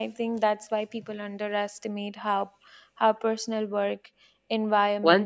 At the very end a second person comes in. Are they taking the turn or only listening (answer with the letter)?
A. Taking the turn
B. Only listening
A